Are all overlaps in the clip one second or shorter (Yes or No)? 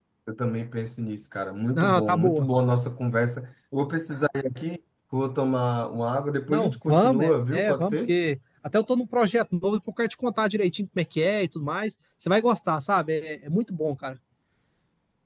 No